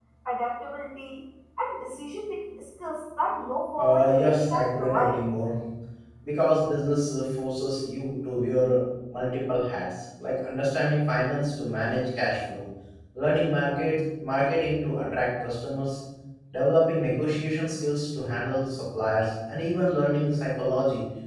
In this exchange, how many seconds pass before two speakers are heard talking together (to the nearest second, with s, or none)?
4 s